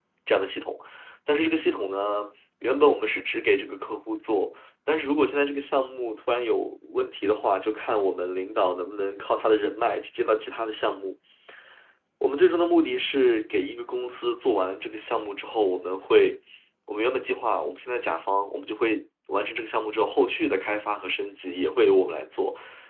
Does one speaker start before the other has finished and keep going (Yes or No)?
No